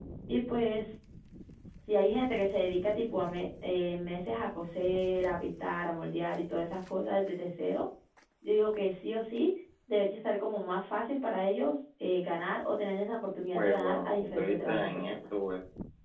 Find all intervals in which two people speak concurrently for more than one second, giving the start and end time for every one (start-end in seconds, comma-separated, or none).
13.5-15.2